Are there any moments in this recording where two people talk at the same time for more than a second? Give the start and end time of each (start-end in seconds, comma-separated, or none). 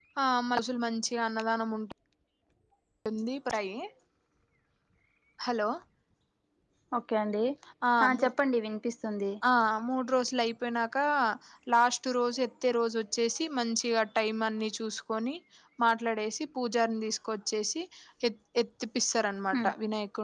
none